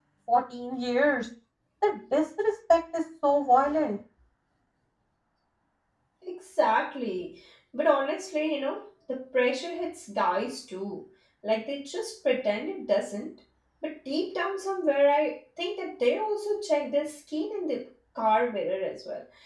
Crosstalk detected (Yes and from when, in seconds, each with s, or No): No